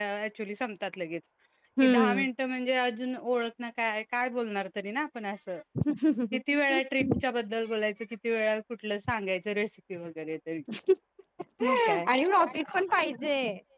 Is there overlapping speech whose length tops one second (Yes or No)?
No